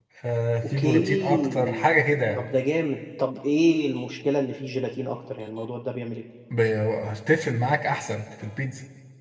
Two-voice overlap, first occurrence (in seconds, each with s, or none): 0.6 s